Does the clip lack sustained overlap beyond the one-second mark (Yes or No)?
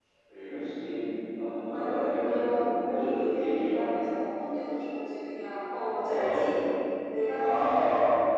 No